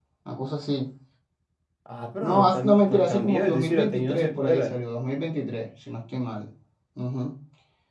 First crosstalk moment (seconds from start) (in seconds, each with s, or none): 2.2 s